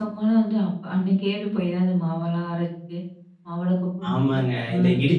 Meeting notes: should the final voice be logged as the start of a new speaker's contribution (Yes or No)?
Yes